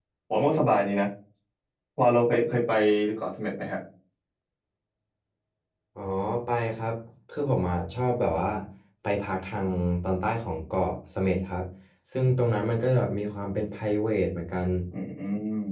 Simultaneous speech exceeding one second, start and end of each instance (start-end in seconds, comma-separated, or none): none